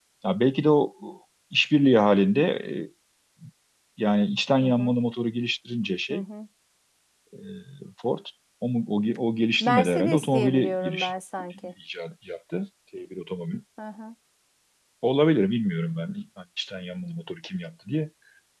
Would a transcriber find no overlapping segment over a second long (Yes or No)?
No